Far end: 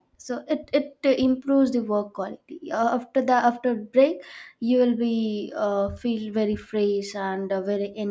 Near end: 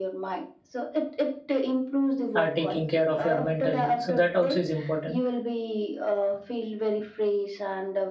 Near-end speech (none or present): present